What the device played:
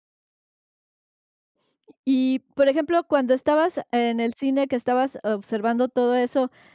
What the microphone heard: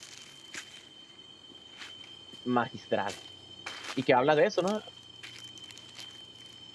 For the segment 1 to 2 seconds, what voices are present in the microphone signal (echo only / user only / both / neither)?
neither